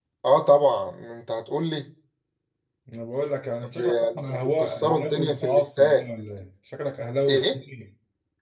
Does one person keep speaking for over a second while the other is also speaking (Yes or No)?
Yes